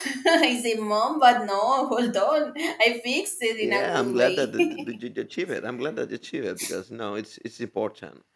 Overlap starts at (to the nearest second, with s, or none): 4 s